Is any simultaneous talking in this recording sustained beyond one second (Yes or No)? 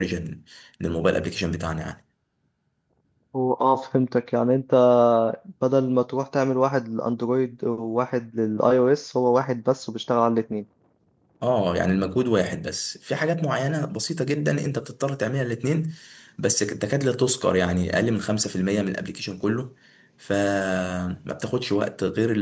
No